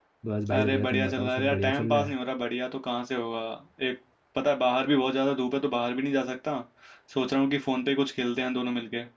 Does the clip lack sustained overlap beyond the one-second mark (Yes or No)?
No